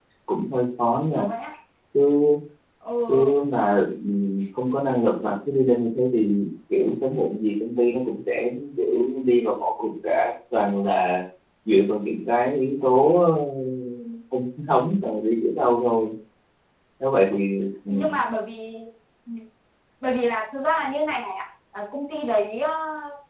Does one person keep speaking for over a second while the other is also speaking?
No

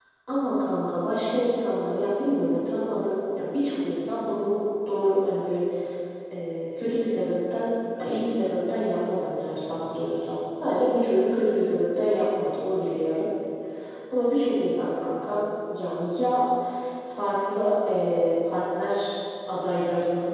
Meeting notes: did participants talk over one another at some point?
No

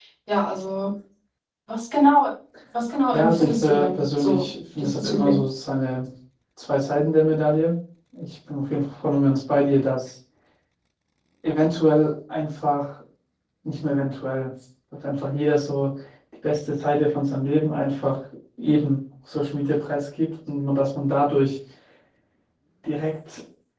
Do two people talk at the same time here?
Yes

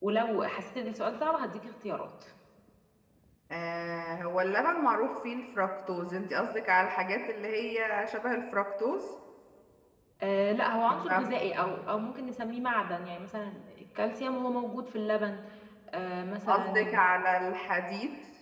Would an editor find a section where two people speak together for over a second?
No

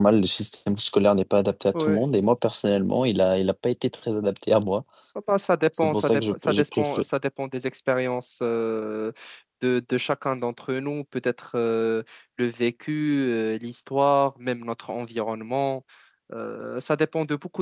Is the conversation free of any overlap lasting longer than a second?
No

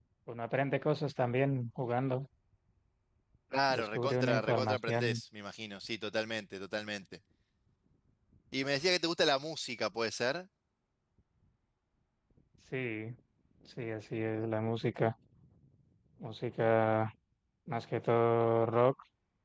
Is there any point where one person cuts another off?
Yes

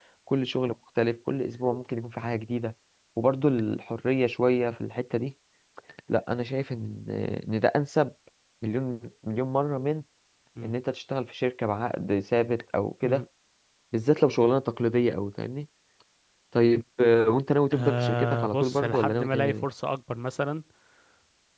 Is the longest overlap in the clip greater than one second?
Yes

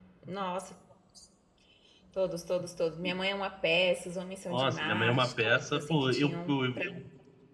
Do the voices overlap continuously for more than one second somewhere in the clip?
Yes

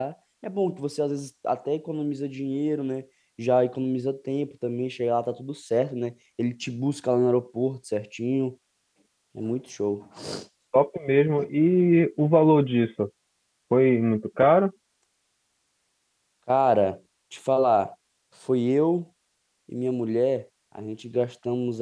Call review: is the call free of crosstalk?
Yes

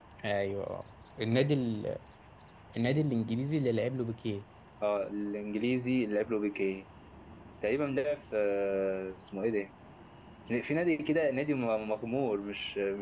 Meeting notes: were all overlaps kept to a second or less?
Yes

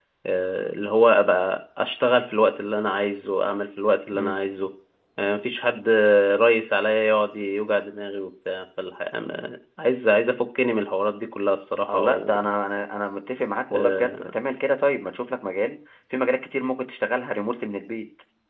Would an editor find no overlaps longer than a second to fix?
Yes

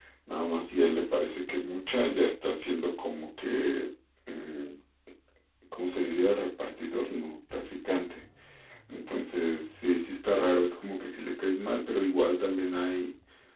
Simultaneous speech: No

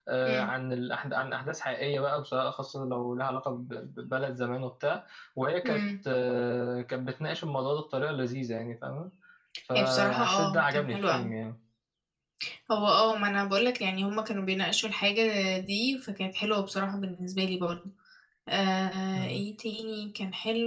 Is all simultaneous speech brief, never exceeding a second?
No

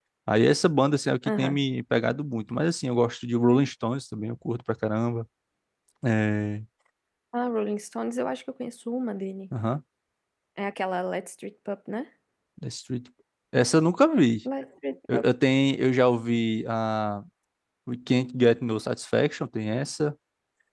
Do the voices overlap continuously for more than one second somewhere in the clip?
No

